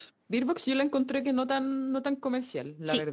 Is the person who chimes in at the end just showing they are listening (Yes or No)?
No